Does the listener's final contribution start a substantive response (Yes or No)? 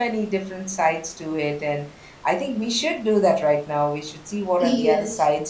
No